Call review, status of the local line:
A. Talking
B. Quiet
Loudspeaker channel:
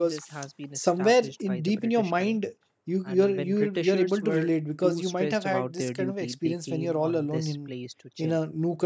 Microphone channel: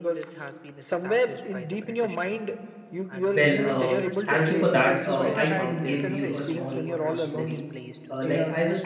A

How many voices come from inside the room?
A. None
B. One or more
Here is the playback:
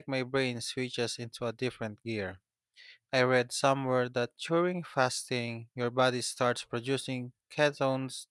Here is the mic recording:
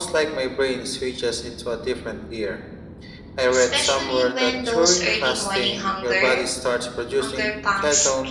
B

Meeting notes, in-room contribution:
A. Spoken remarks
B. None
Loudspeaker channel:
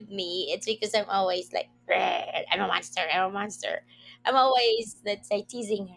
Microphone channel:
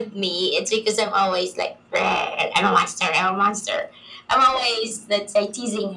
B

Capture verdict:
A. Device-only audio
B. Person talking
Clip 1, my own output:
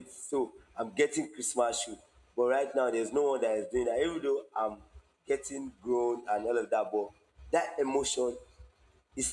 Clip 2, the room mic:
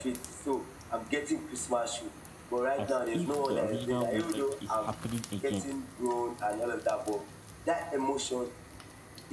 B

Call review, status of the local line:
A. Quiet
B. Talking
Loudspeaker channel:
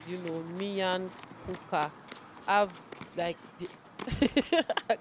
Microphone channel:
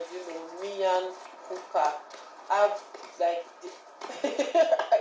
A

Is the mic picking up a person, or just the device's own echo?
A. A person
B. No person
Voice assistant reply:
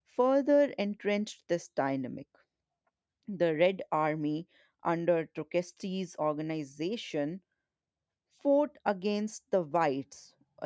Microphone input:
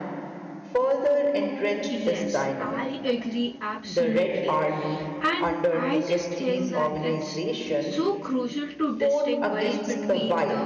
A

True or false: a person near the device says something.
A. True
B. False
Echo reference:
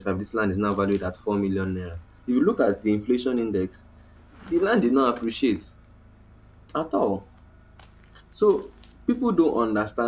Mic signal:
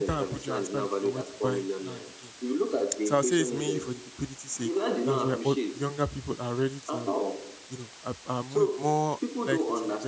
A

